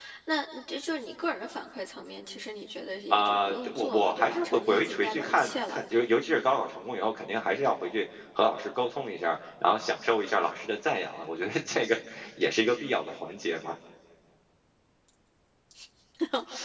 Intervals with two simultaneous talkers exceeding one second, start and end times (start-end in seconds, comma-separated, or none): 3.1-5.8